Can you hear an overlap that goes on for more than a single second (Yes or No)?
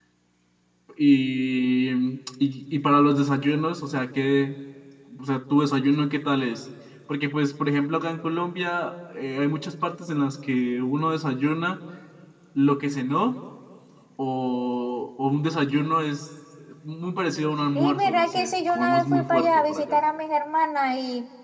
Yes